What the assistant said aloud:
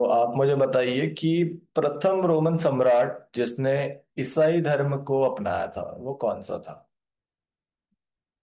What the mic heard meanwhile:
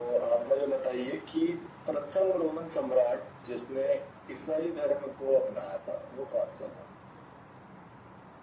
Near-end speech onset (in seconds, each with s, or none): none